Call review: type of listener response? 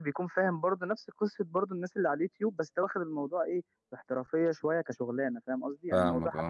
listening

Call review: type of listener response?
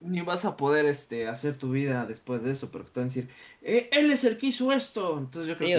taking over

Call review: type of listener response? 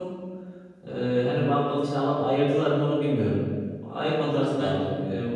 listening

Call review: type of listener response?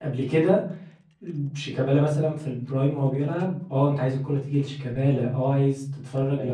listening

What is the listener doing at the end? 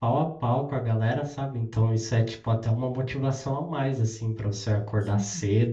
listening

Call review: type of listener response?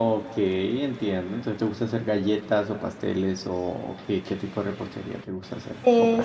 taking over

